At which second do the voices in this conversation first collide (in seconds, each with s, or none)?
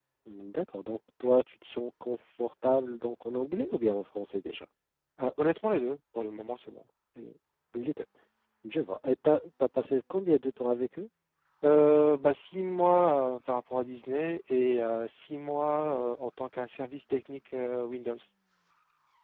none